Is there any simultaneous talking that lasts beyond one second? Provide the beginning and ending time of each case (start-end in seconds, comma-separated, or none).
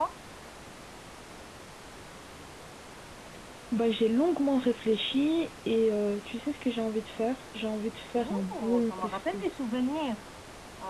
8.2-9.6